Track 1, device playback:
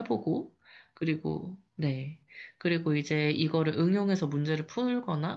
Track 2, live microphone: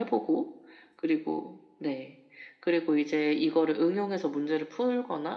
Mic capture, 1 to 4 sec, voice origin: echo only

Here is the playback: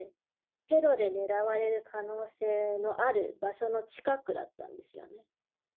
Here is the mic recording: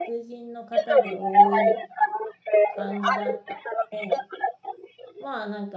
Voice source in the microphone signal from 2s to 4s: both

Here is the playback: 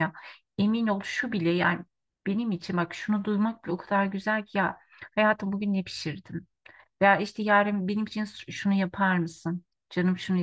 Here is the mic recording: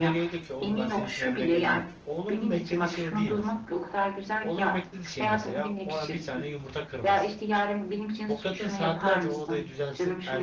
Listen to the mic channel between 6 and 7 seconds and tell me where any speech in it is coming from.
both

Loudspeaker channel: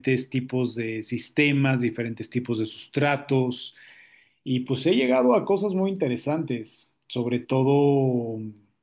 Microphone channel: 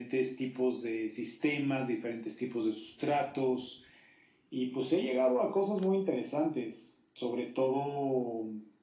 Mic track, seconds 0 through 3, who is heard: echo only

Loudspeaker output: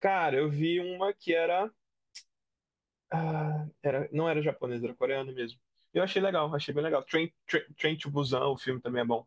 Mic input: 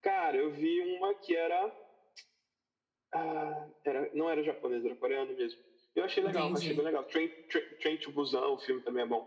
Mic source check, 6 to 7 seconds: both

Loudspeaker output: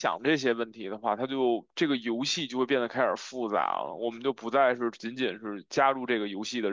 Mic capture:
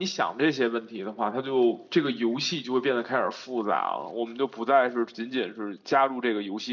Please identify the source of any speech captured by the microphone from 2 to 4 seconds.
echo only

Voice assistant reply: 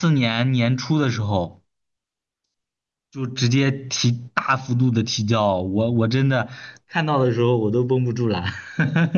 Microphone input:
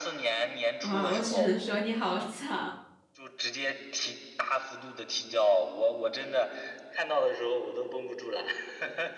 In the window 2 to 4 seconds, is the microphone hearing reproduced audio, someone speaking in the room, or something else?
both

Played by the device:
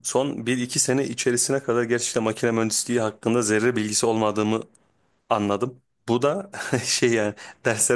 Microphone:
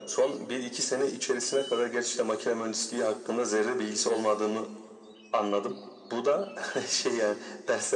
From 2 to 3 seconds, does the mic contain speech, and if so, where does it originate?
echo only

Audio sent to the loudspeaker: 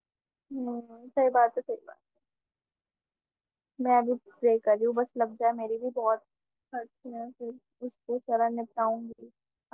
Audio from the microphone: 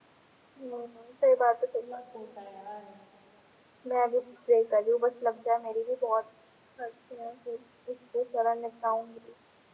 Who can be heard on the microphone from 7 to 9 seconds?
echo only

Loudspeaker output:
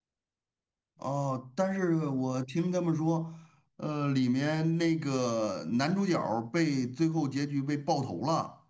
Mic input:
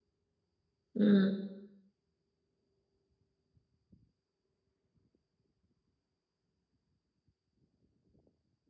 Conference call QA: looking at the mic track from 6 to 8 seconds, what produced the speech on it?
neither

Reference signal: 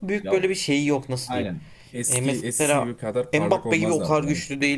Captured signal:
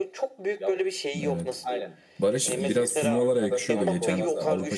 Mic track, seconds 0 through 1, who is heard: echo only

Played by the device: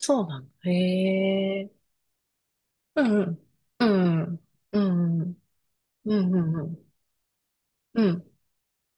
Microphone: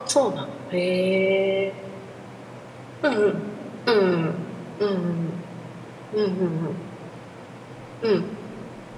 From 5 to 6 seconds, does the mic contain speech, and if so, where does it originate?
echo only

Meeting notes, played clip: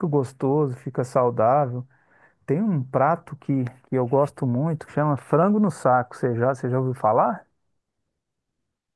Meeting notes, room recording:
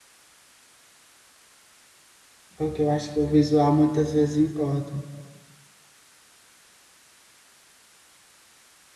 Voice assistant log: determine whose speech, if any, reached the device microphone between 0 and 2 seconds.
neither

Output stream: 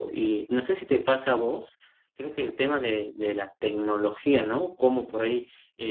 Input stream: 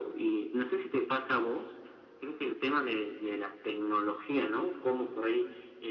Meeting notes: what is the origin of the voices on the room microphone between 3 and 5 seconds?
echo only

